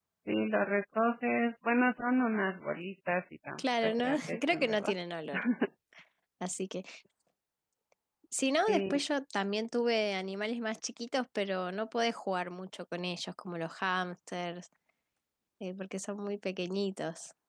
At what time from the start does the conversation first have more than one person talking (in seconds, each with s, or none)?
3.6 s